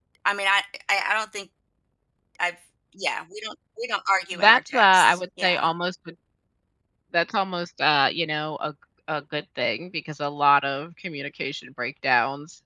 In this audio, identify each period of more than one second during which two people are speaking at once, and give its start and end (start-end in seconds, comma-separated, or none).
4.3-5.7